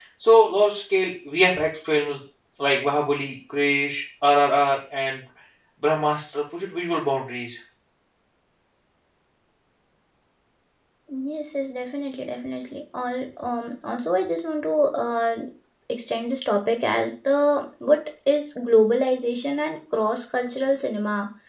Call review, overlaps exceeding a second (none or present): none